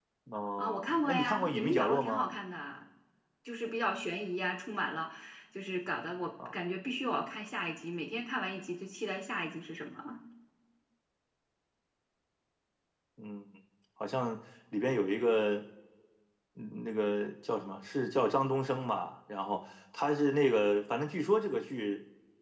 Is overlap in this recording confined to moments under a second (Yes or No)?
No